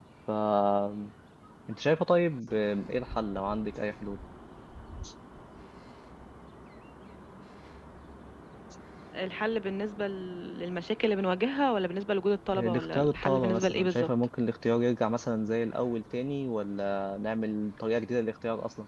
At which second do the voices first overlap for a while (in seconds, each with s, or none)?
12.5 s